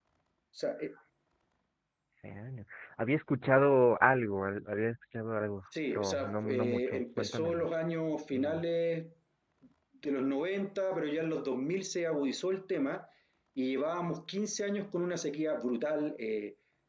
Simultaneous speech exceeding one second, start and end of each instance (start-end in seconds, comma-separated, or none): 5.9-7.7